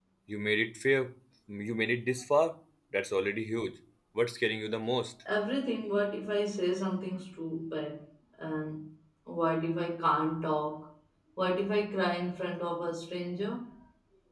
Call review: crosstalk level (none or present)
none